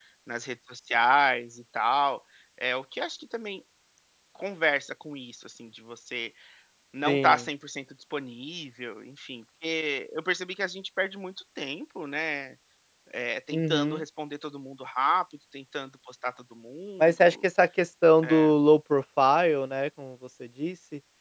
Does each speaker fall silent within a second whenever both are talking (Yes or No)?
Yes